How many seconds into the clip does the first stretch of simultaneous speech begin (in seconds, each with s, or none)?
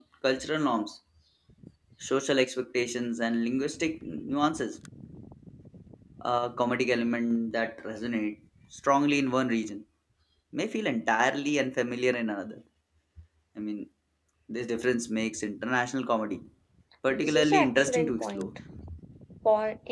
17.1 s